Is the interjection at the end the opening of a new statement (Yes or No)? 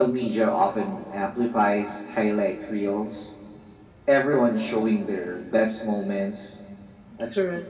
No